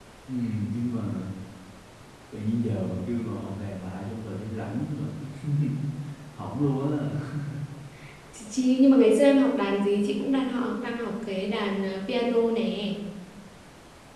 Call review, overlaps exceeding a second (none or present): none